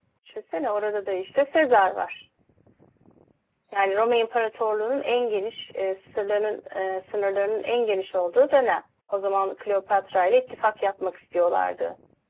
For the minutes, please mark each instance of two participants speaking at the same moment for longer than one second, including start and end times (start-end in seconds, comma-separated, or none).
none